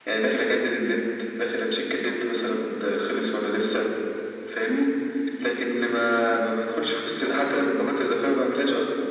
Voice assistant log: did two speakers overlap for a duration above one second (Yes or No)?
No